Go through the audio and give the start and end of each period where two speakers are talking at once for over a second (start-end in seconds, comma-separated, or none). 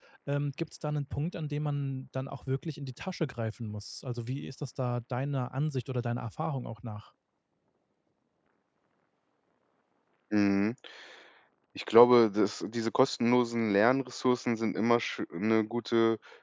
none